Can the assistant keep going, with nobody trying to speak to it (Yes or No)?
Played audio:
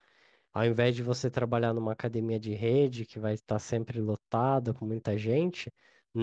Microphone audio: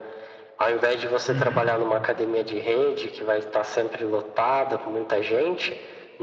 No